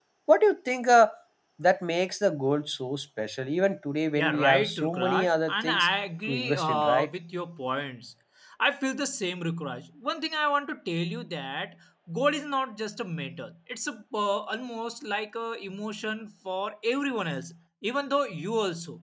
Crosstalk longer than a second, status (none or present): present